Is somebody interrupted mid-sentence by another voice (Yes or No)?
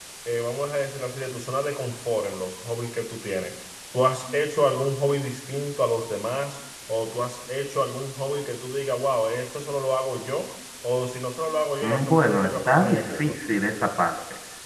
Yes